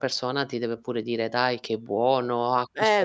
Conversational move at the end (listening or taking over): taking over